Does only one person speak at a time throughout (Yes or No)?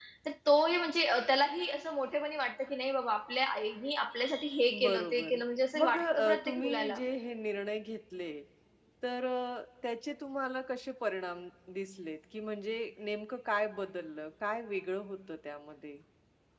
No